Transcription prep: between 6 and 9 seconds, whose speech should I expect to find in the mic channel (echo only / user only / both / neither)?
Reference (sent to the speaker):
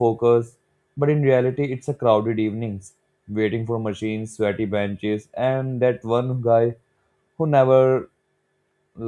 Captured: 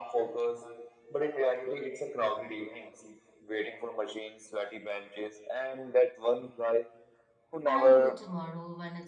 both